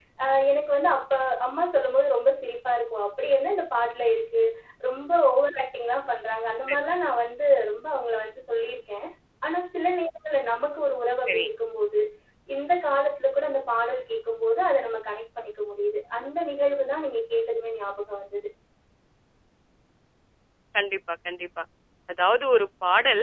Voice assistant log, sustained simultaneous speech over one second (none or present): none